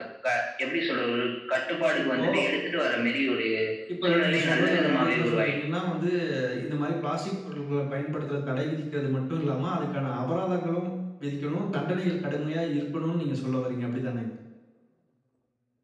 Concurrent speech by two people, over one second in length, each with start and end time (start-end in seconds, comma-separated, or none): 4.0-5.6